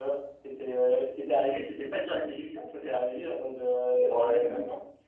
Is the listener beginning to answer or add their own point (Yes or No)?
Yes